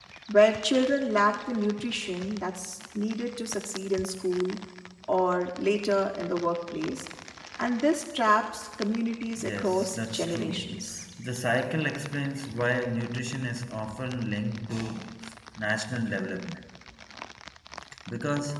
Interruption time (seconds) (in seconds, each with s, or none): 9.4 s